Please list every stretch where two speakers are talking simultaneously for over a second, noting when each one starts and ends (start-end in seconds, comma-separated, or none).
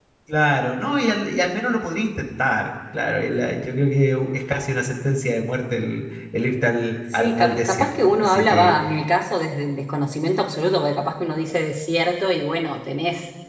7.1-8.8